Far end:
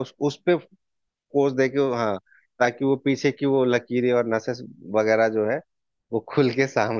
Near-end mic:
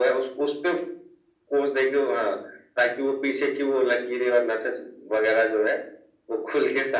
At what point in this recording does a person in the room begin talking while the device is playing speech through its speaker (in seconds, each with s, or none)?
none